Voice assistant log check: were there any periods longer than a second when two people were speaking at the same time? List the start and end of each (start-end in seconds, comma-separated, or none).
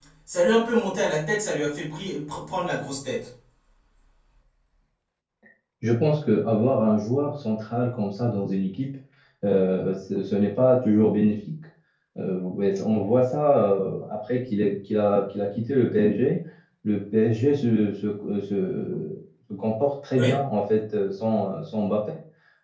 none